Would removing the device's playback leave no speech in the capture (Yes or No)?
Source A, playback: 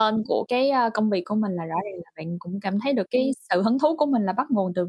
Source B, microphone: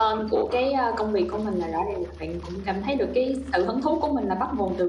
Yes